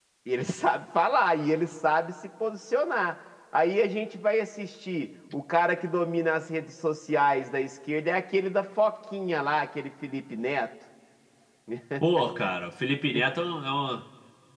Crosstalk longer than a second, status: none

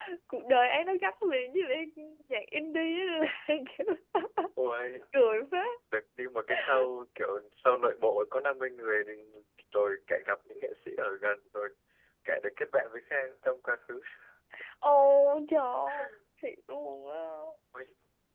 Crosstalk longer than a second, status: none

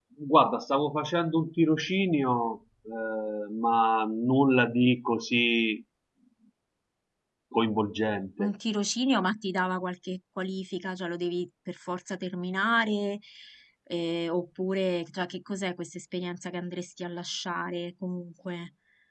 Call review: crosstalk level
none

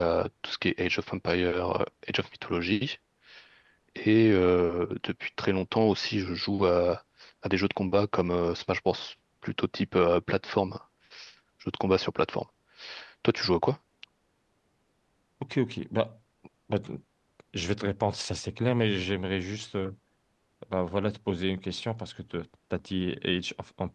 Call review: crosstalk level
none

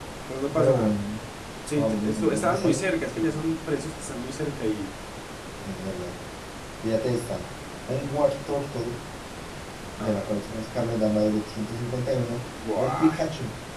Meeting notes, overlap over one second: present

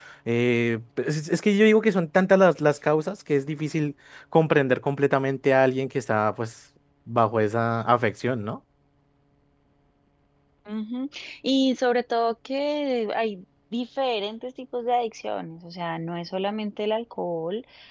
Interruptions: none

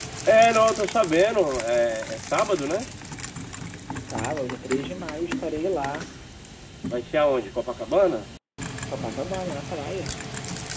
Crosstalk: none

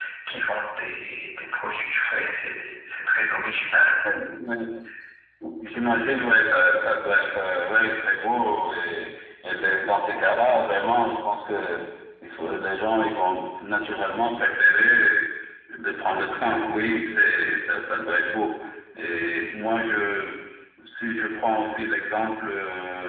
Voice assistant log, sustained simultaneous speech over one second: none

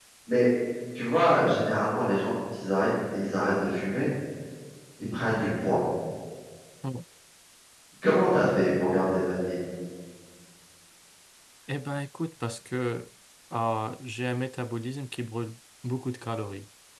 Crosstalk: none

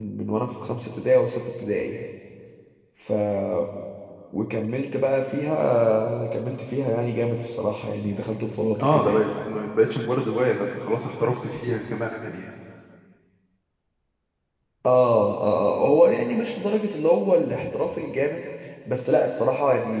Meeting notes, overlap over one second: none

